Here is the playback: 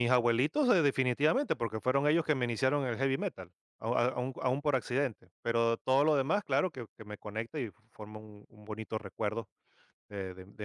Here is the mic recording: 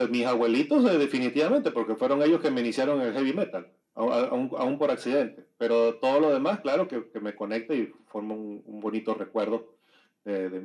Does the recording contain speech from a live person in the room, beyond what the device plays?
No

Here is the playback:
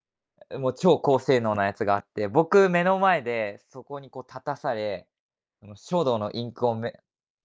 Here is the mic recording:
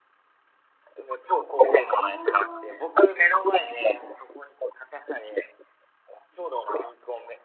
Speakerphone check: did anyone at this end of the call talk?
Yes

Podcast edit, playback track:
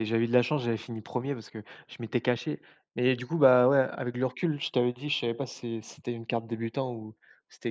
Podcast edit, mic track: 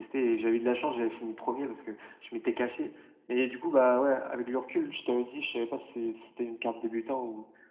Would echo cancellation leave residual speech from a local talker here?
No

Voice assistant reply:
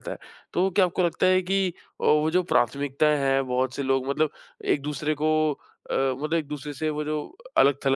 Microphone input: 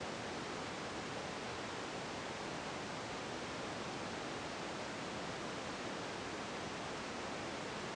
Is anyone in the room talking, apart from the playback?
No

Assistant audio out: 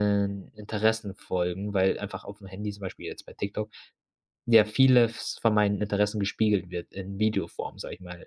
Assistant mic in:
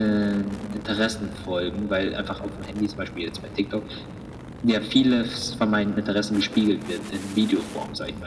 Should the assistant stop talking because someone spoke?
No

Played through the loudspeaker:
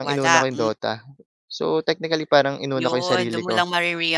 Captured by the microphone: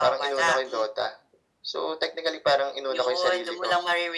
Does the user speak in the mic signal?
No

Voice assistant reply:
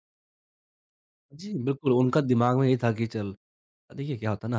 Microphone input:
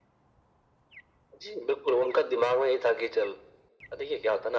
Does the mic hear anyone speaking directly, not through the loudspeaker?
No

